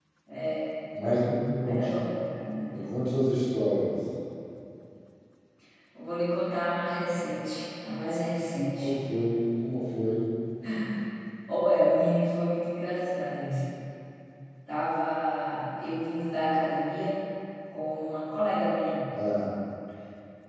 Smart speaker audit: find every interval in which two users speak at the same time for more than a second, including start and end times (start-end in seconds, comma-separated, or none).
none